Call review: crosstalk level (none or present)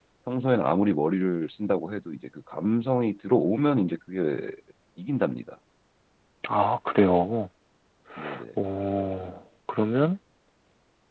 none